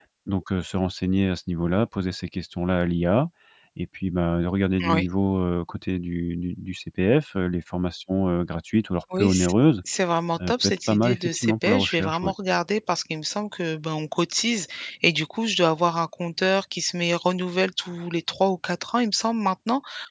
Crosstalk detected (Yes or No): Yes